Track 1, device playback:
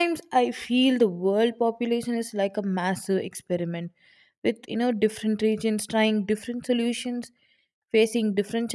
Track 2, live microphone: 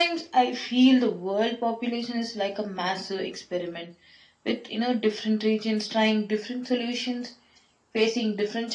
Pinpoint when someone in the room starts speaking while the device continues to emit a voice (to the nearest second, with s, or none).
none